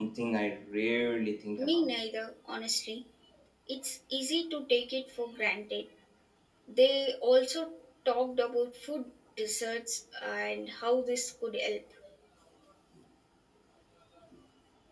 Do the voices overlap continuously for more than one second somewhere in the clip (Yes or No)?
No